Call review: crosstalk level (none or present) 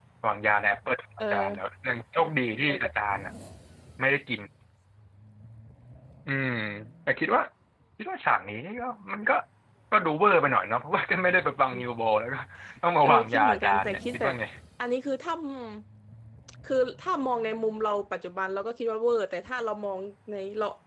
present